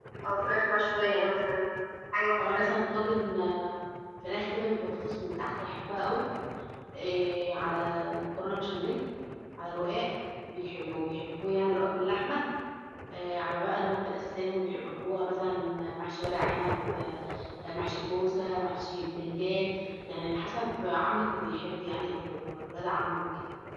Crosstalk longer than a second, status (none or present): none